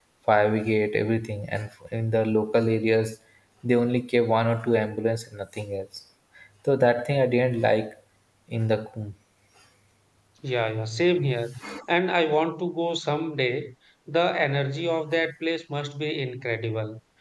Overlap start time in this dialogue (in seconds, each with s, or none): none